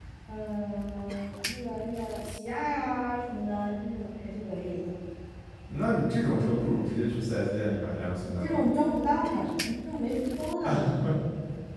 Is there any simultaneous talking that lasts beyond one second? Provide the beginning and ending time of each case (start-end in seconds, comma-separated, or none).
none